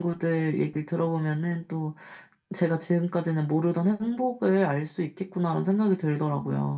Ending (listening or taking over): taking over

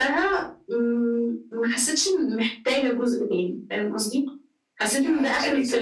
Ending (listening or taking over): taking over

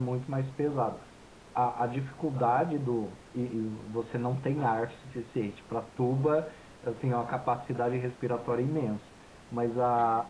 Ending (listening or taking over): listening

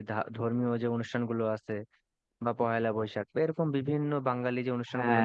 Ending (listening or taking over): listening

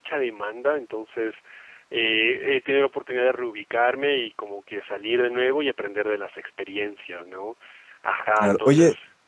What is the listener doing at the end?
taking over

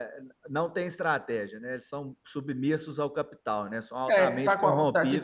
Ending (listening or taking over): taking over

